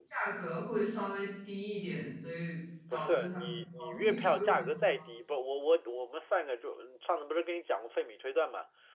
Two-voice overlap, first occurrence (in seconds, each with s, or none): 2.9 s